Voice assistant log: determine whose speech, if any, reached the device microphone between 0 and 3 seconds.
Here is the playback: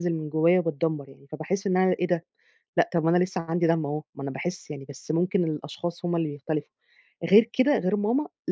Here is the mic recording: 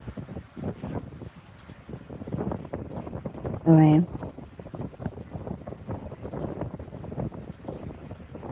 neither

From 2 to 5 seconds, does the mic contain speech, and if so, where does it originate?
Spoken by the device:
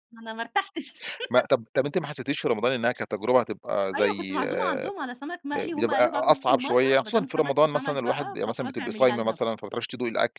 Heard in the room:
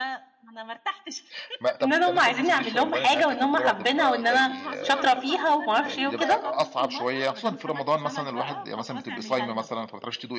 both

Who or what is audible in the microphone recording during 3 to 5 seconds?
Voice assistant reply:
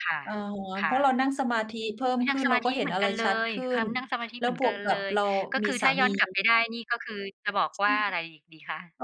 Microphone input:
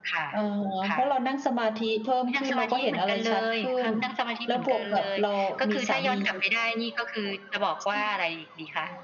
echo only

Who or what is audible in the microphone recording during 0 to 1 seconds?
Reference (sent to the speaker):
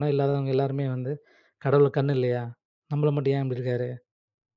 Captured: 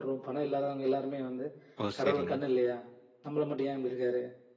echo only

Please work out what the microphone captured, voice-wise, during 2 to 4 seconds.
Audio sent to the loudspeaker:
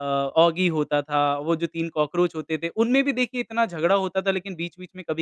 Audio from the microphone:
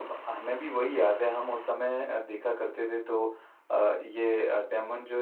user only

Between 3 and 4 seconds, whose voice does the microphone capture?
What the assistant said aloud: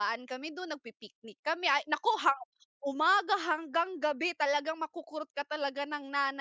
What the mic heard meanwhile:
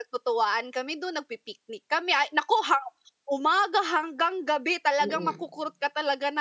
echo only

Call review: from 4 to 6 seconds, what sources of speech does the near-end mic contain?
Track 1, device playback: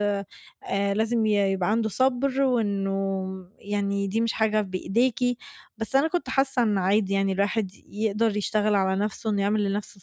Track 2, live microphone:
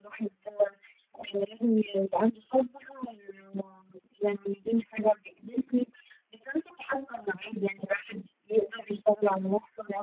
echo only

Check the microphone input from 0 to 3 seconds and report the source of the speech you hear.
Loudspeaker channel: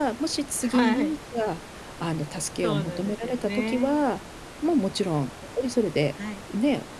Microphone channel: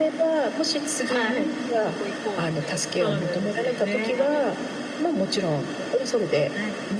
both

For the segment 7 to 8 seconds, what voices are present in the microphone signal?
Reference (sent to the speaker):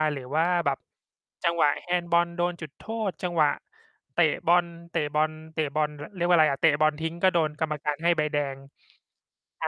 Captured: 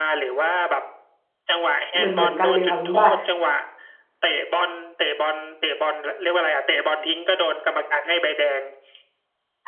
echo only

